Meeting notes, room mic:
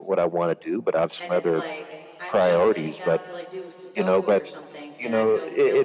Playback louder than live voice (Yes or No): Yes